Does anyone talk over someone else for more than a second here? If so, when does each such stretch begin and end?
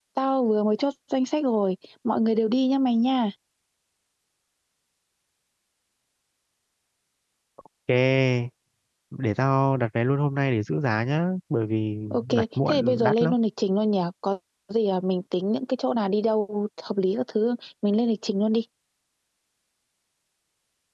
12.1-13.3

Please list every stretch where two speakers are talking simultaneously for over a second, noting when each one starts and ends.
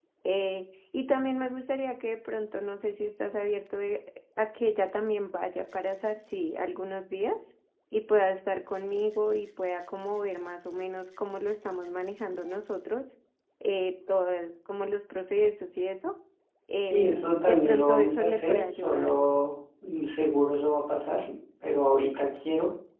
16.8-19.1

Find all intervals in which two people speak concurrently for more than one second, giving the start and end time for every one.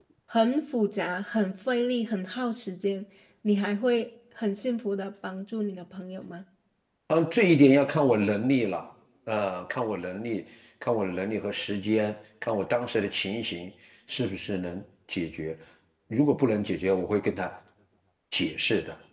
none

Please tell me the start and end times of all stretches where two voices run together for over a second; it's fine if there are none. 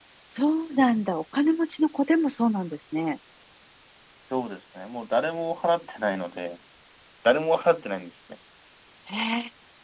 none

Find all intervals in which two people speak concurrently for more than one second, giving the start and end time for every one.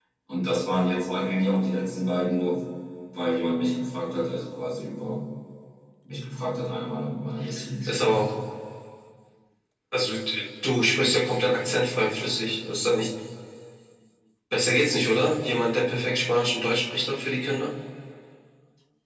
none

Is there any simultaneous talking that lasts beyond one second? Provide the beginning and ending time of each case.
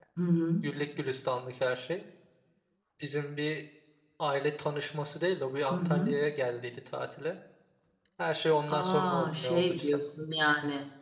8.7-10.0

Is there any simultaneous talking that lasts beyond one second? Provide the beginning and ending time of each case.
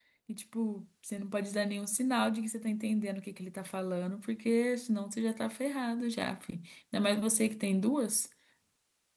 none

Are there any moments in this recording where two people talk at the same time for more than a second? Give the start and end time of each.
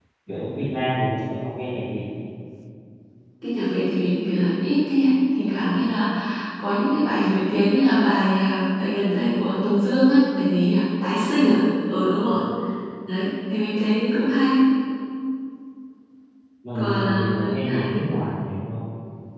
16.8-18.0

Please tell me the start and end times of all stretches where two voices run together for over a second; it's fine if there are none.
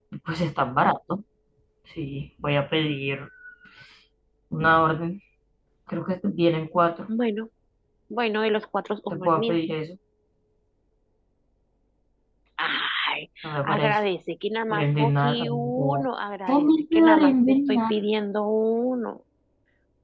14.7-16.1, 16.5-17.9

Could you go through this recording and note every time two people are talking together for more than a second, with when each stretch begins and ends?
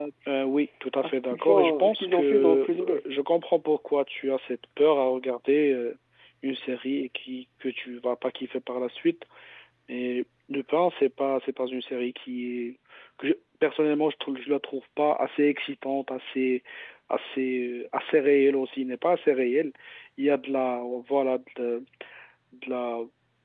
1.0-3.0

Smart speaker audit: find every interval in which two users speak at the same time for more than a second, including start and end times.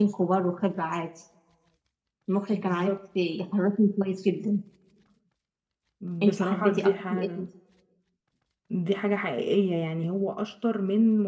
6.2-7.5

